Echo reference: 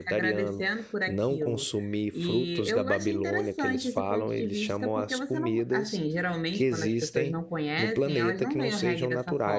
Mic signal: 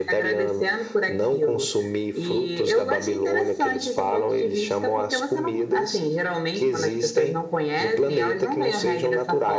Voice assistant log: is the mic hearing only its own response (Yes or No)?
Yes